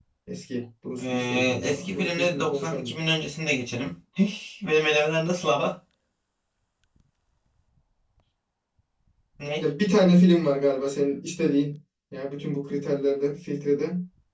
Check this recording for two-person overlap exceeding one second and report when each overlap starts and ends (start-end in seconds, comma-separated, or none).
1.0-2.9